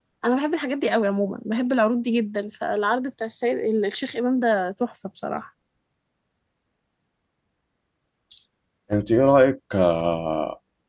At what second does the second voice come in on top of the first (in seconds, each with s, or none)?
none